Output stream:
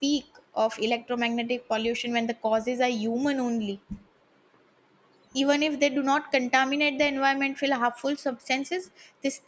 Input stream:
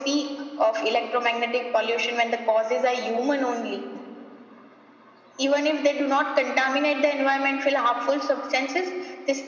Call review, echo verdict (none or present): present